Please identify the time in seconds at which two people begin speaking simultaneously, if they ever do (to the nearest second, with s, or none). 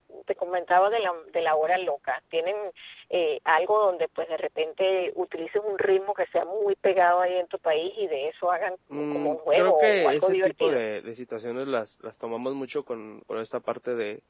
9 s